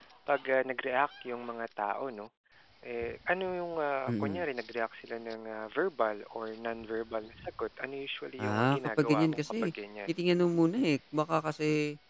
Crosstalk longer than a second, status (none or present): present